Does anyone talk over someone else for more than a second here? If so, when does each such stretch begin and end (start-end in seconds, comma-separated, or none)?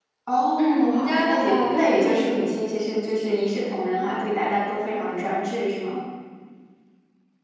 0.6-2.4